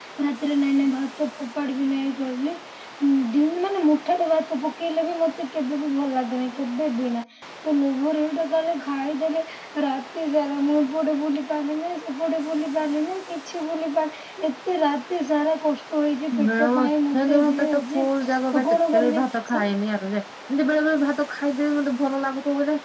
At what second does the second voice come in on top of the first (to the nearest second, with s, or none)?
16 s